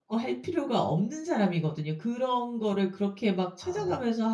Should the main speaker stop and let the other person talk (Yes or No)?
No